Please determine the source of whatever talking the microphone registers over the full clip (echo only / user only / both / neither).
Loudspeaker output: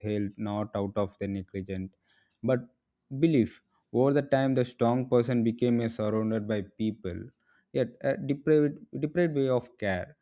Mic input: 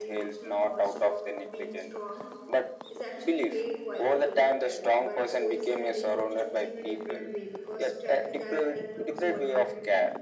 both